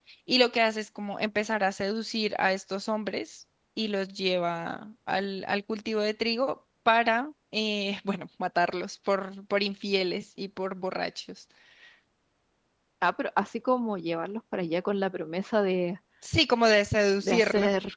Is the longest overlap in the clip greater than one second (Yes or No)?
No